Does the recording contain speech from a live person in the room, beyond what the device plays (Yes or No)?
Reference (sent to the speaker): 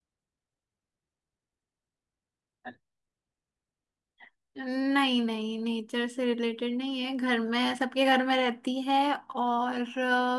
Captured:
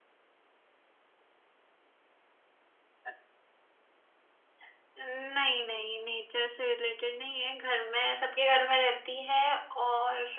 No